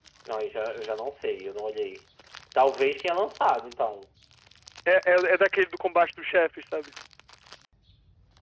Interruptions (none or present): none